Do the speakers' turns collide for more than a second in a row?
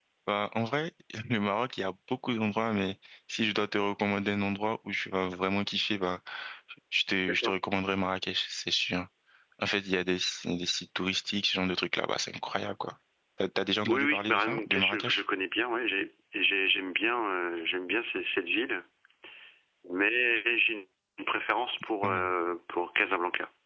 Yes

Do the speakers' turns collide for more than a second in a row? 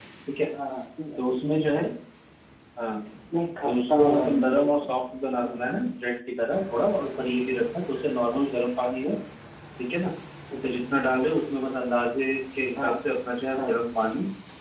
Yes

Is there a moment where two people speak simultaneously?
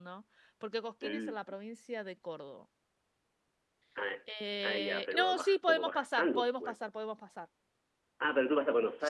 Yes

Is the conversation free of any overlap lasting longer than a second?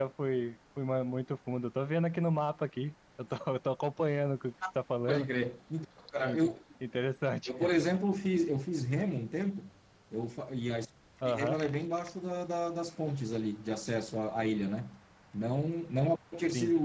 Yes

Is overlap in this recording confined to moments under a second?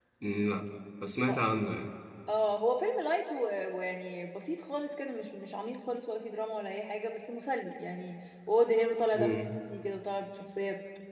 Yes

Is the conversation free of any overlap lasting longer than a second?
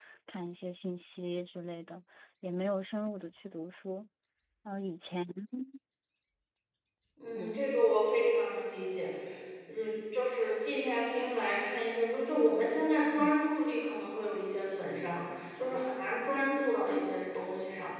Yes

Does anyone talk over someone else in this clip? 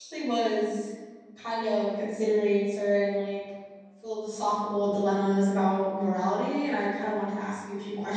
No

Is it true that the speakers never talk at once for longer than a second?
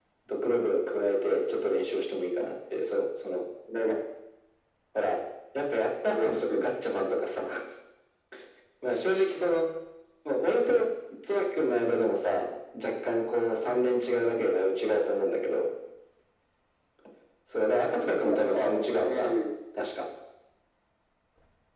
No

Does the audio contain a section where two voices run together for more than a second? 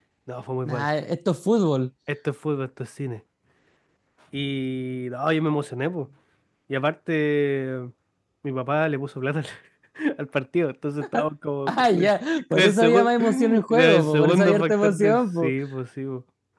Yes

